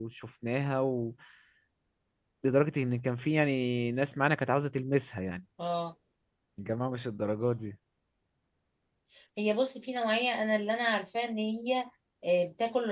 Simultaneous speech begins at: none

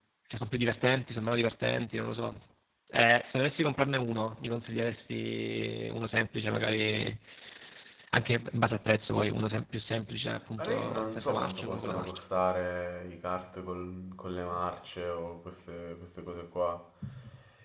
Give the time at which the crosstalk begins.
10.6 s

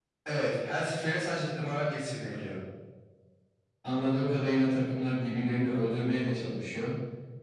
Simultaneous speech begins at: none

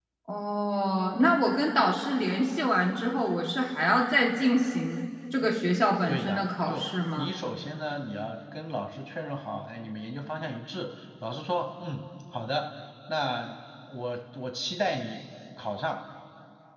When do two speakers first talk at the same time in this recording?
6.1 s

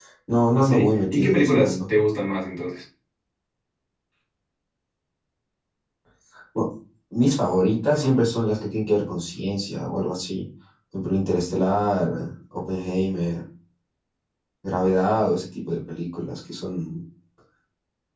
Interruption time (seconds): 0.5 s

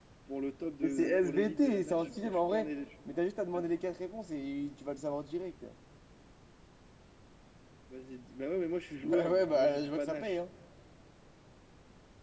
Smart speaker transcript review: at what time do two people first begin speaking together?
0.8 s

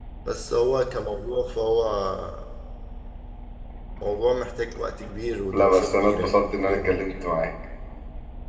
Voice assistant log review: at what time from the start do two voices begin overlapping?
5.5 s

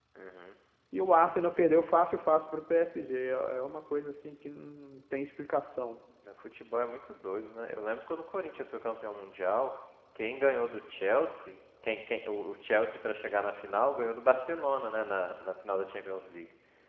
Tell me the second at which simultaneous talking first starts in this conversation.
none

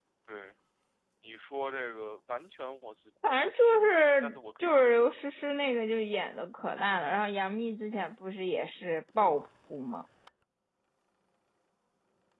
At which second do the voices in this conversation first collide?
3.2 s

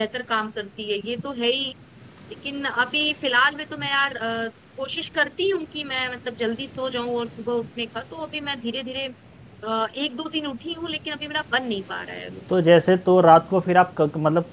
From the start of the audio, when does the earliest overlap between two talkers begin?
none

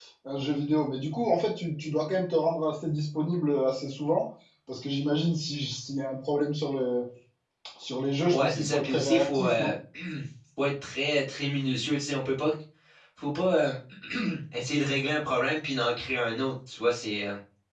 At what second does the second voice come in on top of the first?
8.3 s

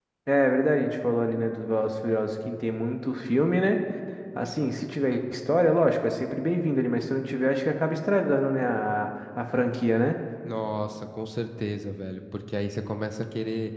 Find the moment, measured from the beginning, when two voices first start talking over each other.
none

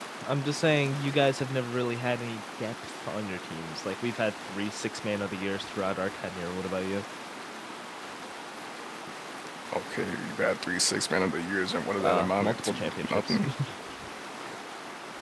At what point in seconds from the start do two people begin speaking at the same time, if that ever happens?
12.0 s

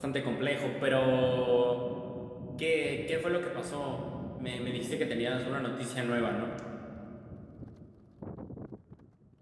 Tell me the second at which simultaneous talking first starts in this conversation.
none

